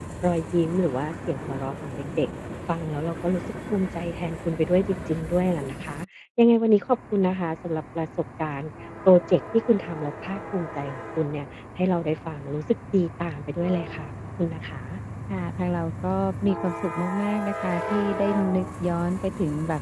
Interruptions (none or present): none